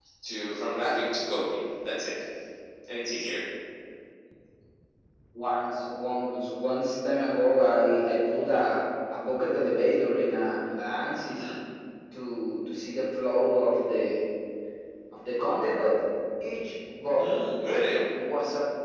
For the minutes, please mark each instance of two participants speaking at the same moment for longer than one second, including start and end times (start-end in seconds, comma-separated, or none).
none